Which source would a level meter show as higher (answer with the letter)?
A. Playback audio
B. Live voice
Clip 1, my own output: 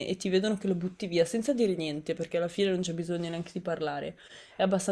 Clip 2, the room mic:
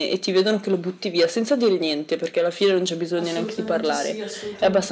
A